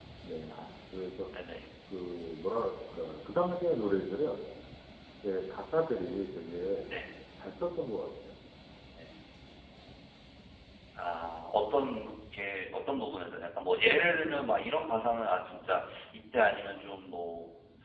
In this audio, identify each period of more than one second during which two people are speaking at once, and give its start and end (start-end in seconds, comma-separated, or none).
none